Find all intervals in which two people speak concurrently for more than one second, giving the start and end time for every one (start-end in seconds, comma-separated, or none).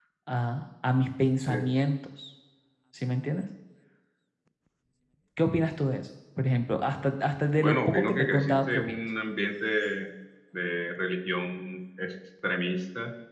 7.6-9.0